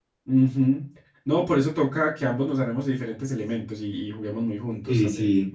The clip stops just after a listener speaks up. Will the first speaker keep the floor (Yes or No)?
No